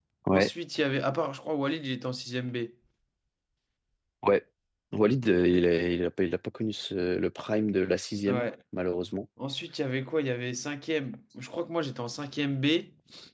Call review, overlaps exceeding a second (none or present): none